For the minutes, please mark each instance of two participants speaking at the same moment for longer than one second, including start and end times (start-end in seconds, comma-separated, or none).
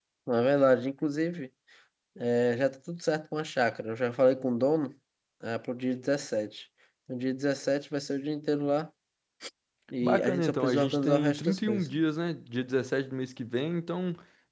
10.0-11.9